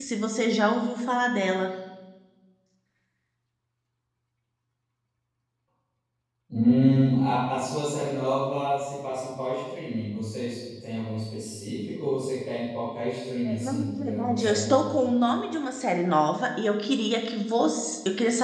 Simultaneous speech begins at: 13.4 s

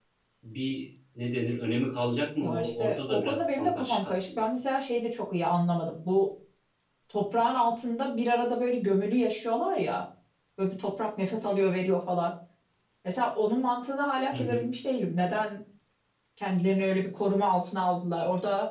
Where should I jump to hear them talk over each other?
2.4 s

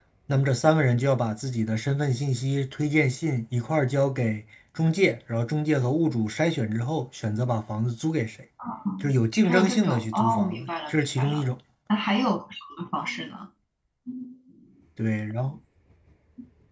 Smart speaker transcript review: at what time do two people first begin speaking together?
9.4 s

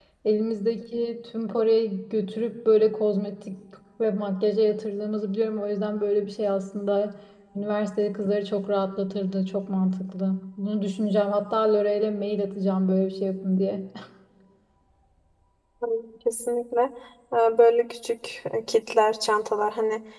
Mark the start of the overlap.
none

